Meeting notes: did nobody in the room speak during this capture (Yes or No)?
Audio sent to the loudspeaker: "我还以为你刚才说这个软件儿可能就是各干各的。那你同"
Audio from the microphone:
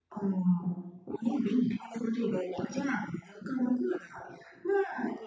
Yes